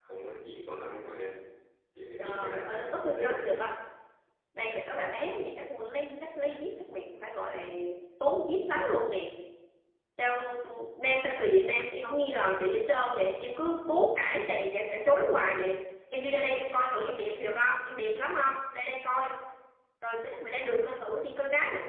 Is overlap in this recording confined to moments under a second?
No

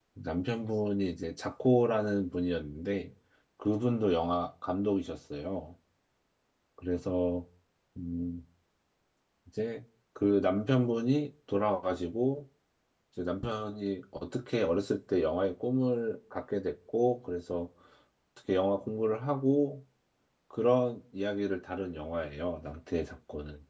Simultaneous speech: No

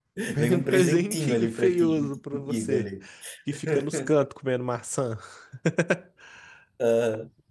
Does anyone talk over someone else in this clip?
Yes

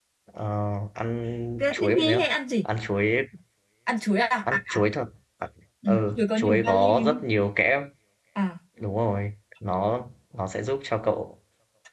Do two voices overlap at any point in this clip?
Yes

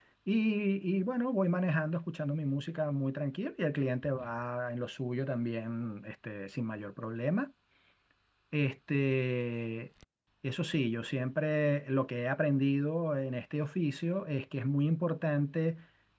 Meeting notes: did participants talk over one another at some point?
No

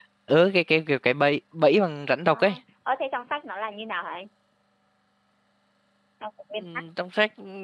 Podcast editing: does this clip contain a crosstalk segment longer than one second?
No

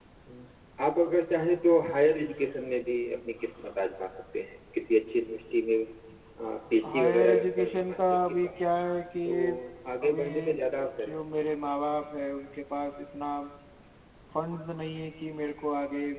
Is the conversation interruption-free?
No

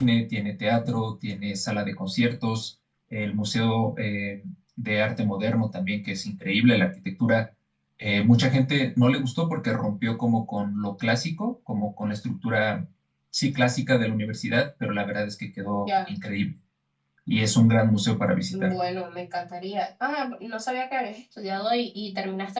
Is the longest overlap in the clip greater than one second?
No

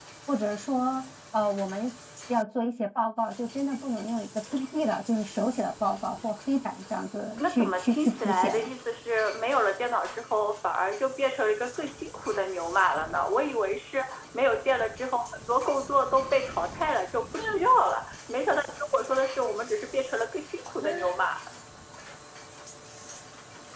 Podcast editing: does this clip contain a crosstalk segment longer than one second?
Yes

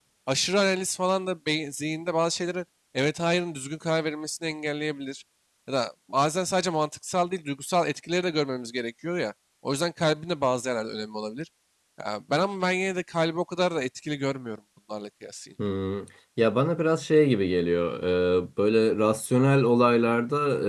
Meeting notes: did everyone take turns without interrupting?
Yes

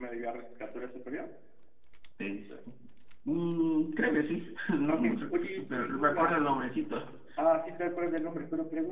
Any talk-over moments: Yes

